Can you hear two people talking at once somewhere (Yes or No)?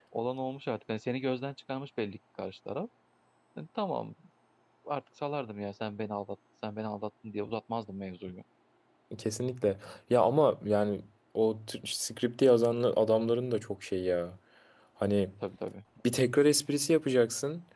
No